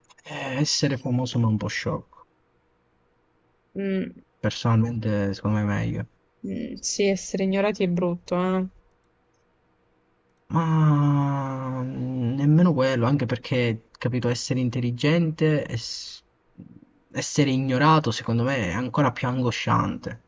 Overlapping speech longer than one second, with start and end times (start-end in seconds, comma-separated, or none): none